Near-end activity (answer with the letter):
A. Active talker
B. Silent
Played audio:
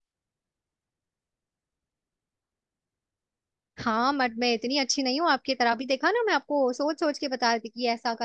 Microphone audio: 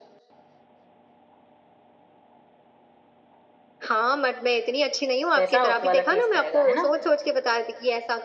A